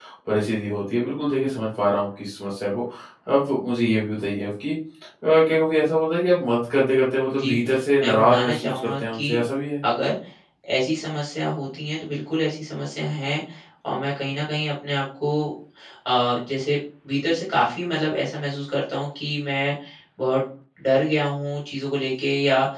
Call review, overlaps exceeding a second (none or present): present